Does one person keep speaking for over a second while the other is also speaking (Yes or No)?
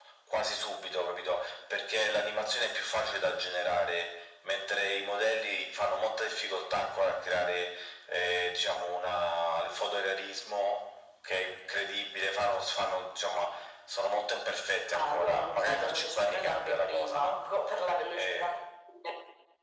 Yes